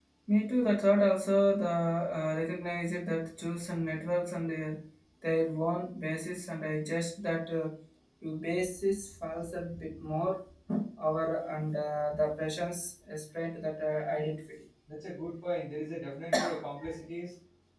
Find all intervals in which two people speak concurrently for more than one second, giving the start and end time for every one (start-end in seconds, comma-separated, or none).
none